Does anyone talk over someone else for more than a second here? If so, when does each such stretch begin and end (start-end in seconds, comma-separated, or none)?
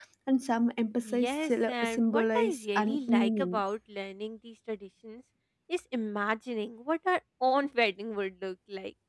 1.0-3.6